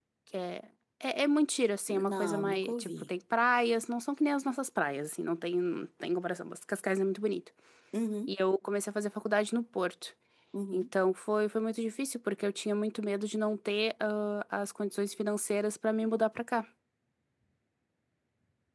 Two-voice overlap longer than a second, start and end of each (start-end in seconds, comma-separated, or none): 1.9-3.1